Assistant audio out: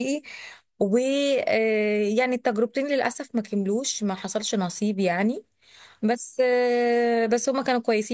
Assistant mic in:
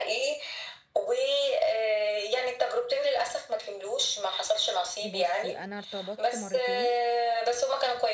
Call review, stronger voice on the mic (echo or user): echo